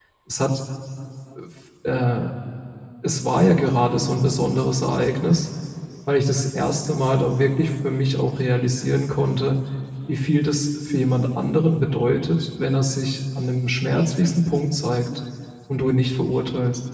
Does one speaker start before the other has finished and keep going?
No

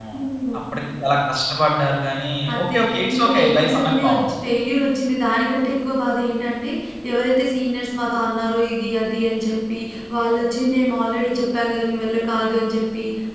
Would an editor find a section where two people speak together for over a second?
Yes, from 2.5 s

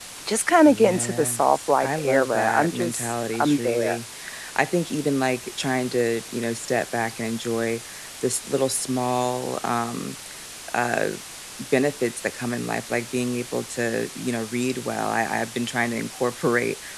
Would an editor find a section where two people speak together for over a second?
Yes, from 0.7 s

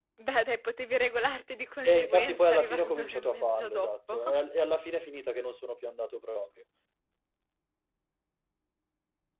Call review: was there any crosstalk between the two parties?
Yes, from 1.8 s

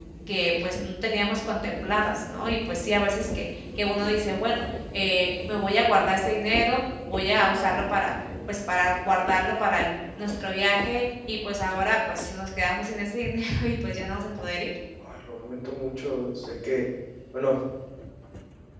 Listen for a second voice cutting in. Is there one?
No

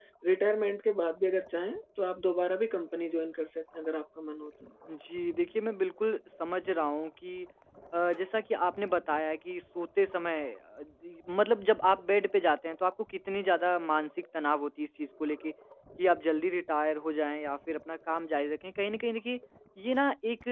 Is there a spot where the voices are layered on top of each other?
No

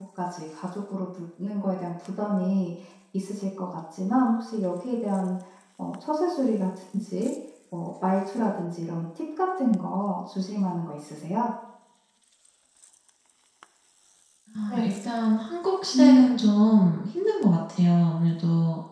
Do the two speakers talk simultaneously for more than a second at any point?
No

